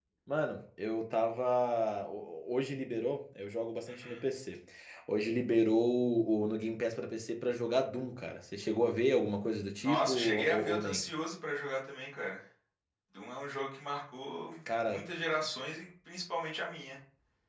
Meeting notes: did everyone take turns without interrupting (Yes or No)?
No